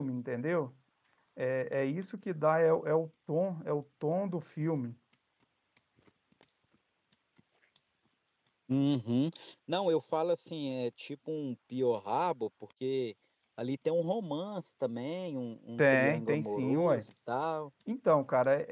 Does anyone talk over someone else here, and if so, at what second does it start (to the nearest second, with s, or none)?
16 s